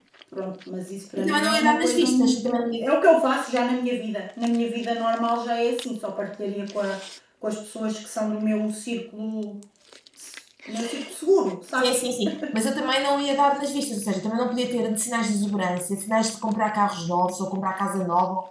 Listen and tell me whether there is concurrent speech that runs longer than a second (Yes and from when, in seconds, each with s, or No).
Yes, from 1.2 s